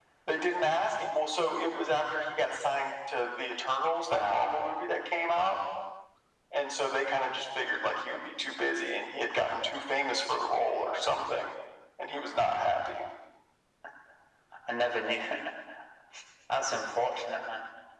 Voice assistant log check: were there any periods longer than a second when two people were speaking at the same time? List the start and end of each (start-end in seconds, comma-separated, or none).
none